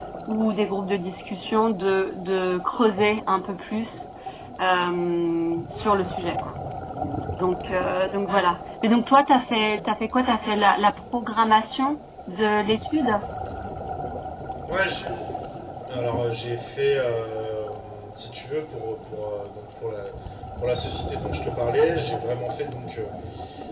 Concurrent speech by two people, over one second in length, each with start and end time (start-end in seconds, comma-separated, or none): none